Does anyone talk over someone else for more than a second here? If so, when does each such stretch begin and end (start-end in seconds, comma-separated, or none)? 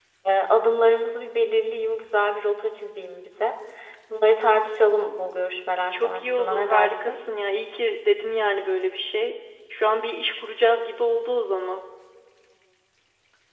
5.9-7.2